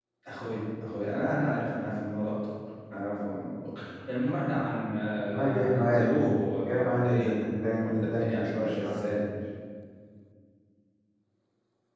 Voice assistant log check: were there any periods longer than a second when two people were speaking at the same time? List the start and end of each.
5.2-7.3, 7.8-9.2

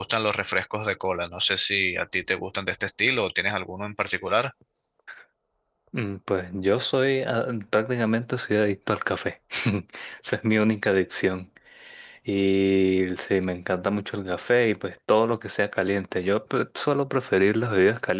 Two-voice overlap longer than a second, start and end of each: none

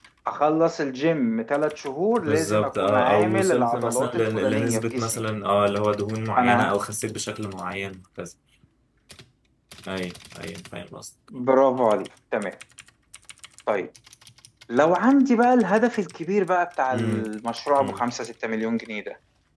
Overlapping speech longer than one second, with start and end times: 2.2-5.2

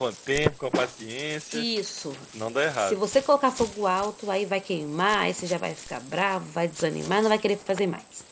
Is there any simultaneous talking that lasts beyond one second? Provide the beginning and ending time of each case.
none

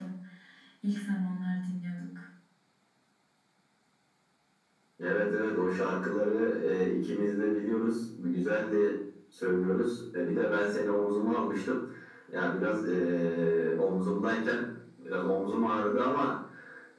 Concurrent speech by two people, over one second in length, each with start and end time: none

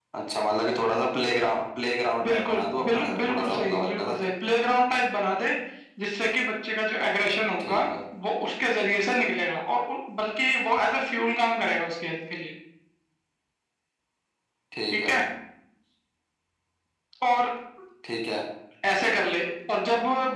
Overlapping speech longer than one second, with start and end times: 2.2-4.1

